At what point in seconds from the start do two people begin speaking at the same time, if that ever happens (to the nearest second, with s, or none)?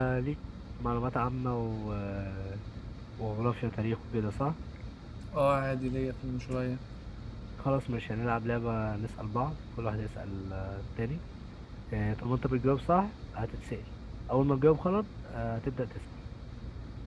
none